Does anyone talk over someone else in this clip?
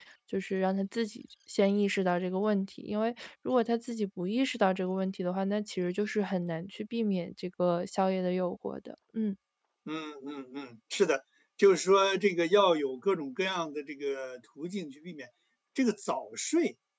No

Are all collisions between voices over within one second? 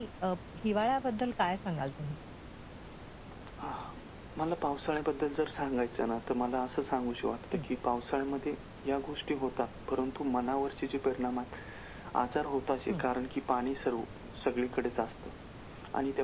Yes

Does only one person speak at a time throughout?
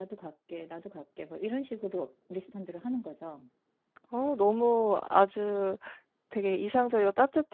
Yes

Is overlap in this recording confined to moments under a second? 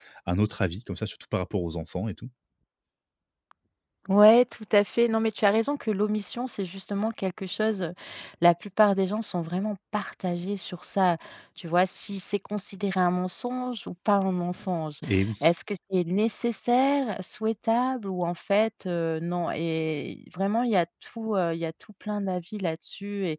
Yes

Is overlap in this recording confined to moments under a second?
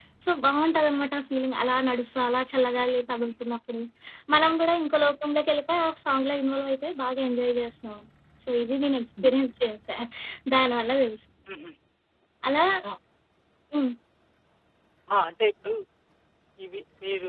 Yes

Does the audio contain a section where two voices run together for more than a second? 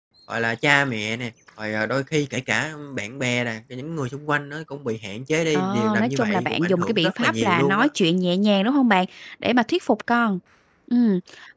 Yes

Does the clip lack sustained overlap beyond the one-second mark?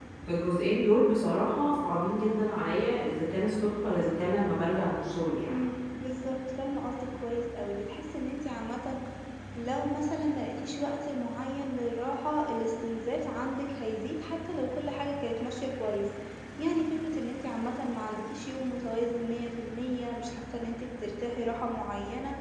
Yes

